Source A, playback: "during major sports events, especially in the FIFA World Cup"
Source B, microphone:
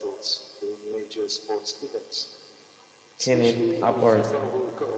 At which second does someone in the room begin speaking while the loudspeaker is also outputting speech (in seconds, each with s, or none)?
3.2 s